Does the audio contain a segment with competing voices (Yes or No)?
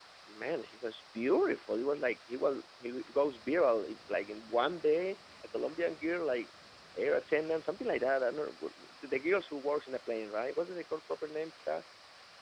No